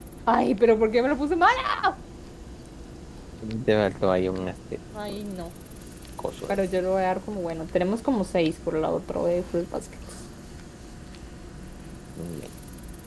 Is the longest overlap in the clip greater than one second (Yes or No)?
No